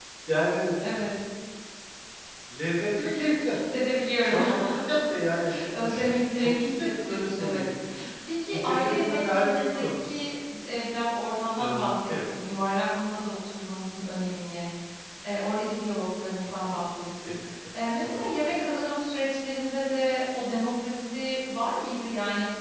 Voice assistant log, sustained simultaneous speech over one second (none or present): present